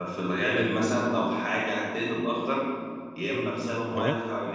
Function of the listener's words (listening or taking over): listening